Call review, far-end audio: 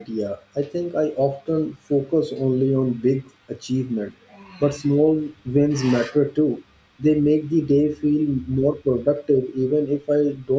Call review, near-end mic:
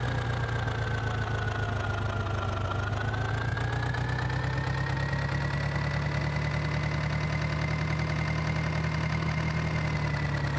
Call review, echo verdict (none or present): none